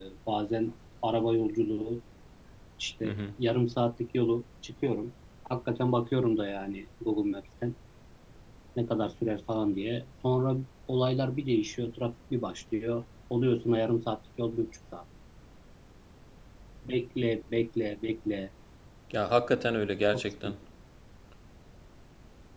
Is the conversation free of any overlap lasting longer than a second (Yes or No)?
Yes